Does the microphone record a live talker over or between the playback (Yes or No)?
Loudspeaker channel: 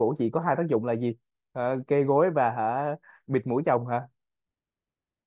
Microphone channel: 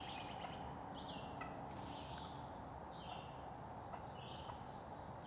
No